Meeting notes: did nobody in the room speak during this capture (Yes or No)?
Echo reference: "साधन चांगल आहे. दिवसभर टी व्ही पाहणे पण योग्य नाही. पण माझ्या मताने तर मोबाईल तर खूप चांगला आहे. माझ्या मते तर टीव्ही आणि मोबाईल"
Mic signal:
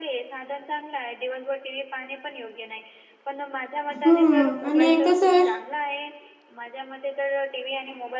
No